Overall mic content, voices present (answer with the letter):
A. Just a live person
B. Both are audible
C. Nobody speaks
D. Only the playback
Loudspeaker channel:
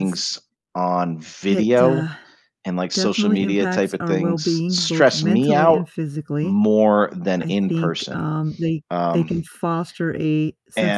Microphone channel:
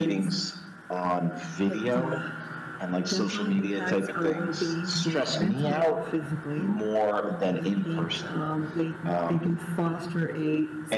D